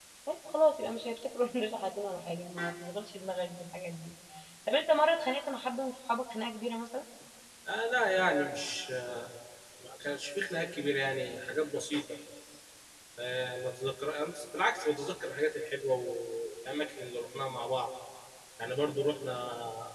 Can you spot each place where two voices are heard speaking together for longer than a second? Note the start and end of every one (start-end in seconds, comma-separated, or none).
none